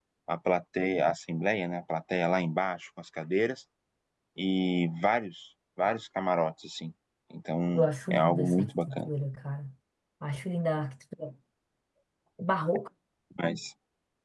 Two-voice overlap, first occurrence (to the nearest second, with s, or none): 8 s